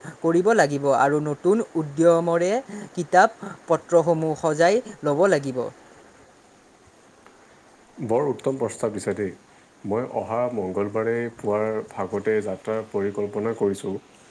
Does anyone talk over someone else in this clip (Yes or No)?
No